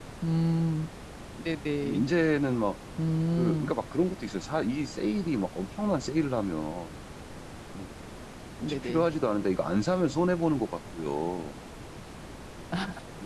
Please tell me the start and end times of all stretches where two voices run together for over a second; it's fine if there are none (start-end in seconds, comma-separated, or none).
none